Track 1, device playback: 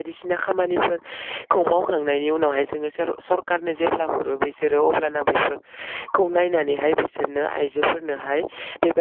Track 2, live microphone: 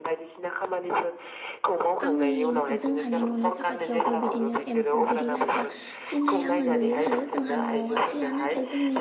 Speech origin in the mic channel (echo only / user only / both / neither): both